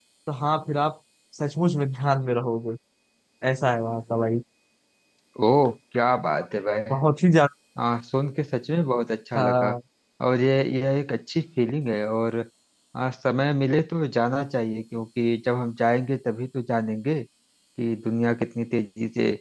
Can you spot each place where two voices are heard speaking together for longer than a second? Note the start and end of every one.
none

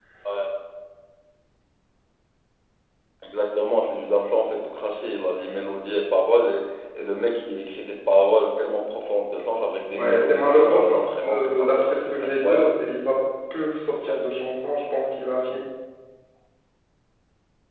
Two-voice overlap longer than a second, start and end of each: 9.9-12.8

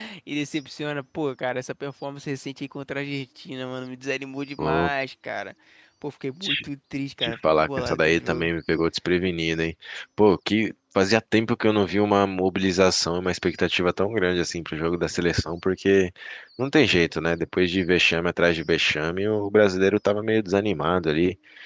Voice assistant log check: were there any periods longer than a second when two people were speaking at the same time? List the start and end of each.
7.2-8.5

